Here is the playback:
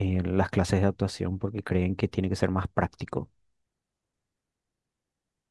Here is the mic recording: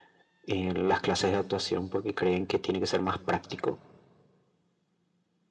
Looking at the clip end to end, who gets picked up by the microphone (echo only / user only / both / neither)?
echo only